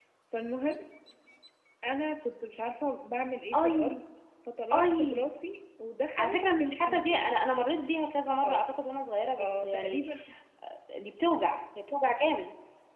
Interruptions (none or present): present